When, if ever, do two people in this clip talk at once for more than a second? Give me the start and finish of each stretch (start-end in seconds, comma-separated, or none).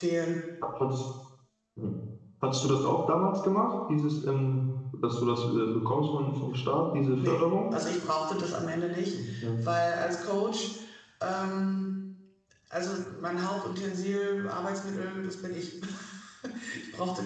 none